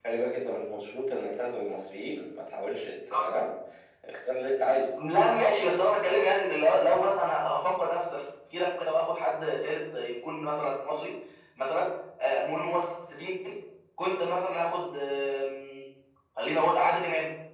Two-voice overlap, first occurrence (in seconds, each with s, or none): none